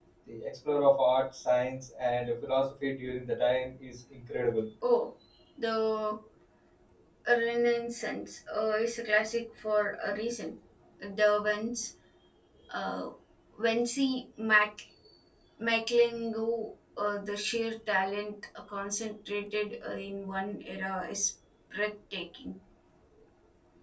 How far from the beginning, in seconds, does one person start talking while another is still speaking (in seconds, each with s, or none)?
none